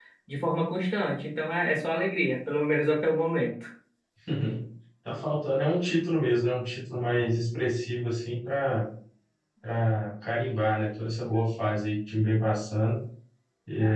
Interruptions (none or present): none